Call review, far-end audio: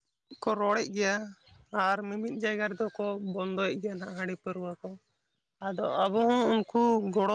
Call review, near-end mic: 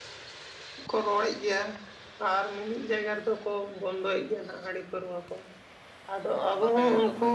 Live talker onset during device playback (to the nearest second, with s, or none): 6 s